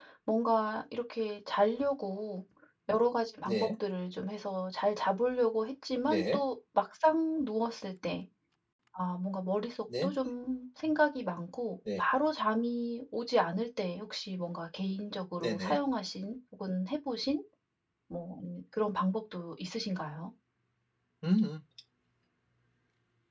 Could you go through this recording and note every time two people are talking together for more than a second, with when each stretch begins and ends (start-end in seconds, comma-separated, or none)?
none